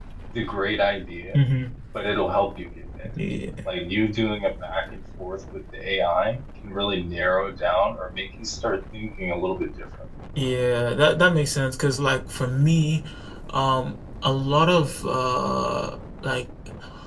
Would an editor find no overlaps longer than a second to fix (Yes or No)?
Yes